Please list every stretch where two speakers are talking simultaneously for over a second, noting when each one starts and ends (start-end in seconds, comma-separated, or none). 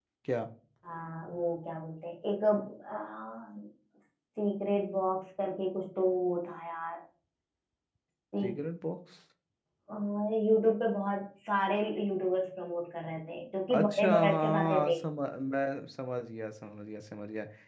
13.7-15.0